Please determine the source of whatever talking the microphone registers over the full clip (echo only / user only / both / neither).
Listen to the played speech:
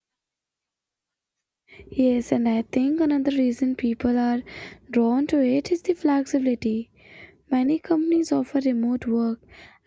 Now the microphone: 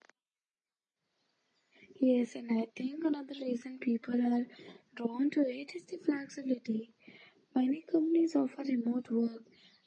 echo only